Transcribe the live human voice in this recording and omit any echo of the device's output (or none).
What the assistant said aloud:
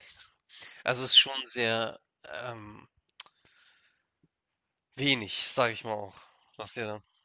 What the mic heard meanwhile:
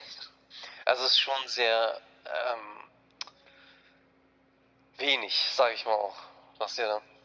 none